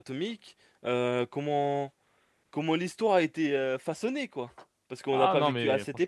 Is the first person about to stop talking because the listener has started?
Yes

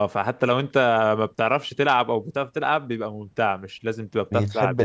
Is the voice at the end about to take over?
No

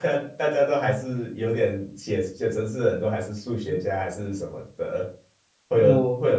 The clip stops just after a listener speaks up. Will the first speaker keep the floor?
Yes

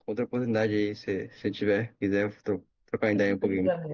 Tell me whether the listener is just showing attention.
No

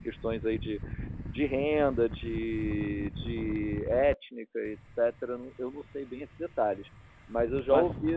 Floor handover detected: No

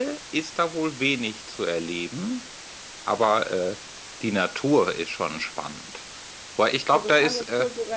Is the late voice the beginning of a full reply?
Yes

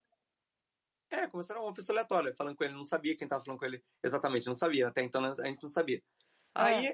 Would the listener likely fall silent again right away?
Yes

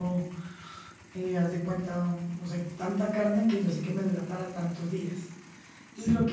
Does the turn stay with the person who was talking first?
Yes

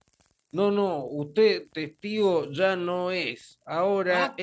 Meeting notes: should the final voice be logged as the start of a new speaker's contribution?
No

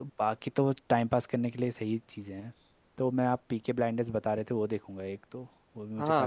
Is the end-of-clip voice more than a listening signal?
Yes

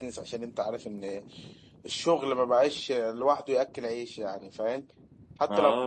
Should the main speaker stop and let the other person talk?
Yes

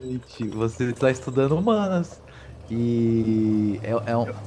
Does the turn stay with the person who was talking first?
Yes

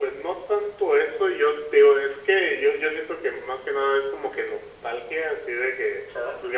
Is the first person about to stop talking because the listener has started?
No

